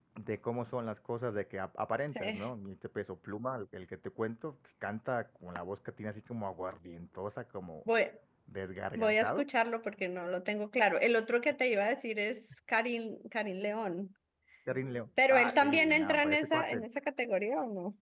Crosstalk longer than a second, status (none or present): present